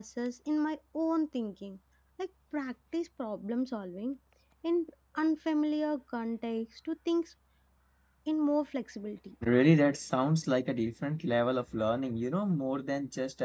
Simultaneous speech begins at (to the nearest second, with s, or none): none